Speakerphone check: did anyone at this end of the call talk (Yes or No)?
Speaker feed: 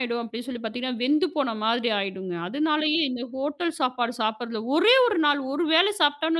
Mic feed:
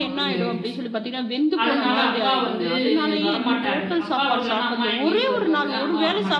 Yes